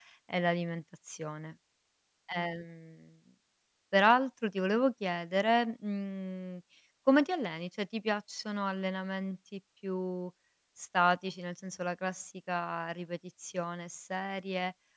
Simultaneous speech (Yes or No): No